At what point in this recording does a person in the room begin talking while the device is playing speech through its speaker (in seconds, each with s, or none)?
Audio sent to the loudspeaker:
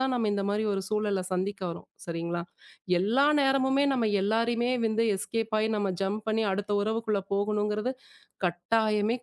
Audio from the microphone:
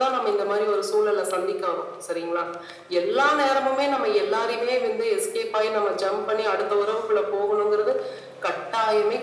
none